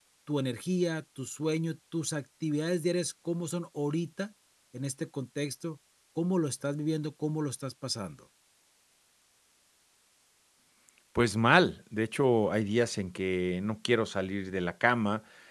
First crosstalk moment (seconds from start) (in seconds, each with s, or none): none